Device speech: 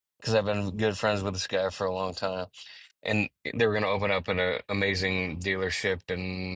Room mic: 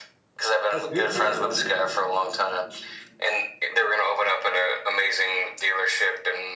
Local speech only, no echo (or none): that's a beautiful area.